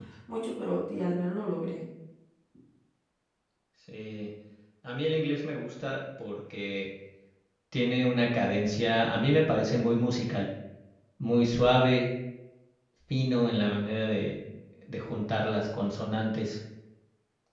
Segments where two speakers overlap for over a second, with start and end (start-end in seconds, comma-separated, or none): none